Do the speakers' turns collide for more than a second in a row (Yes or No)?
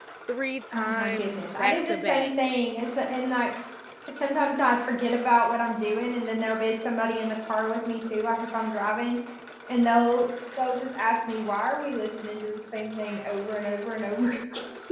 Yes